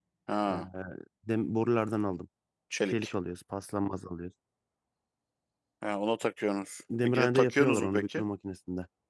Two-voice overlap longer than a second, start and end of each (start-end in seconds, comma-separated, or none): 7.0-8.2